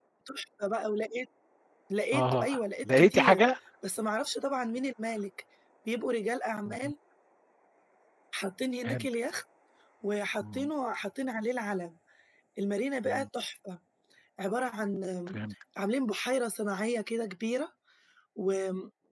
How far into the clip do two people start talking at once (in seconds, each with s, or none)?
2.1 s